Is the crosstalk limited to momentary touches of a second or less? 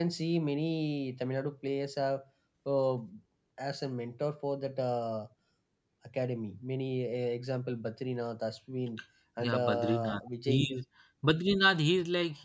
No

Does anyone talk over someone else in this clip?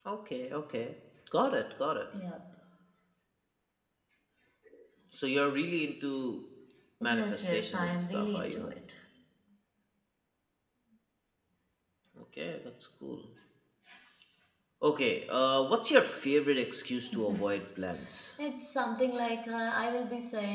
Yes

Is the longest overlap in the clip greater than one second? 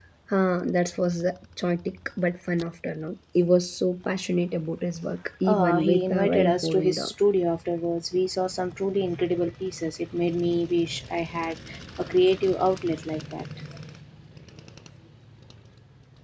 Yes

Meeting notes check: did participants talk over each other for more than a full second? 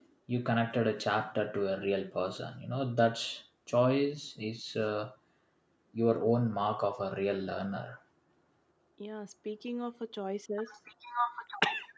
No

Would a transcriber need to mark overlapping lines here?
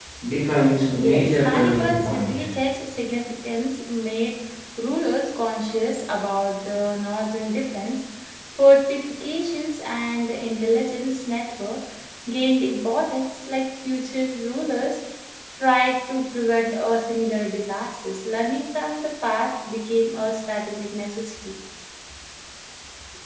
Yes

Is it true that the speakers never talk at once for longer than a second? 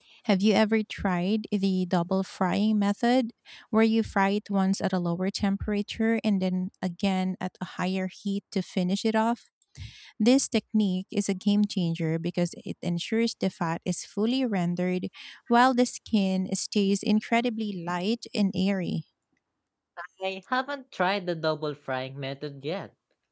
Yes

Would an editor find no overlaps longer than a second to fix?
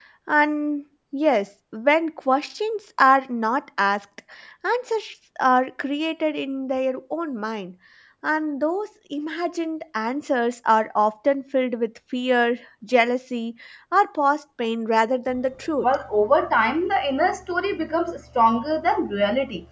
Yes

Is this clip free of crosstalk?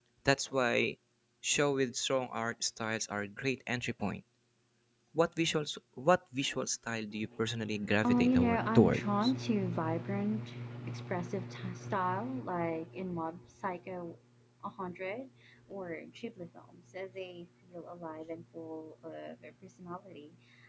No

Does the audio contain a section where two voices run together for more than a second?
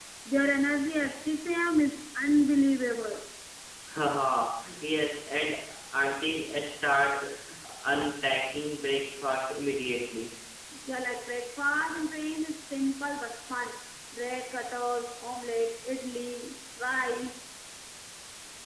No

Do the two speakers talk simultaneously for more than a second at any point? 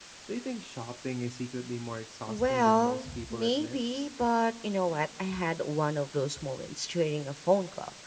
Yes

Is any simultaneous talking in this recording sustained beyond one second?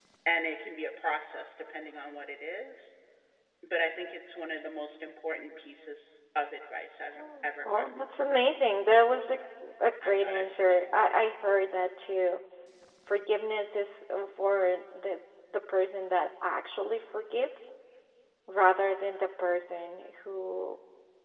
Yes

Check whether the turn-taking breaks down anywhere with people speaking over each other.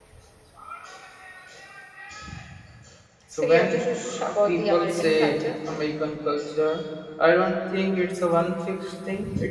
Yes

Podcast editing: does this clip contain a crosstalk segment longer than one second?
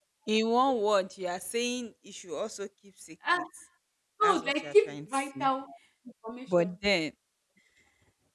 Yes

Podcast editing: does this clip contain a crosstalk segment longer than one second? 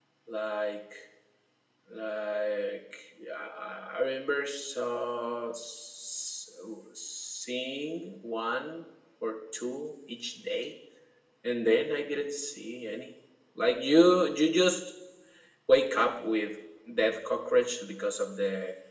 No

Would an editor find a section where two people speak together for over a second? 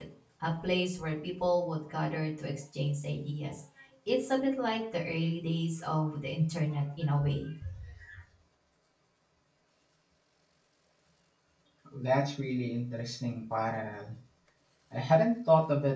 No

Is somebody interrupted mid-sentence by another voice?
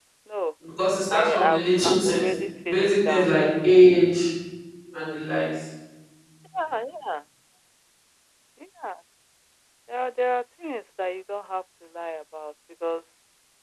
Yes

